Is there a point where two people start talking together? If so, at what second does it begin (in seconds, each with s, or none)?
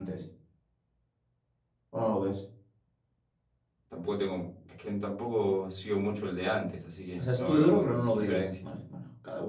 7.2 s